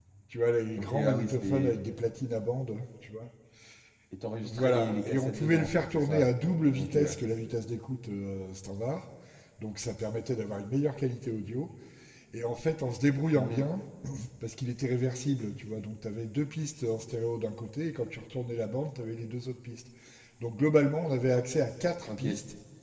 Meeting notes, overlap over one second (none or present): present